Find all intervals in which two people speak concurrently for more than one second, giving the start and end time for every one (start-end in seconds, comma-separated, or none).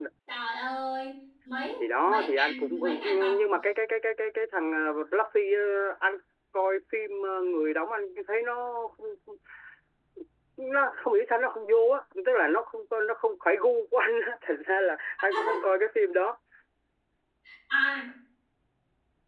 1.8-3.3